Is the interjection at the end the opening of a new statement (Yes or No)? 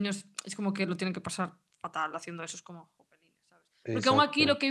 No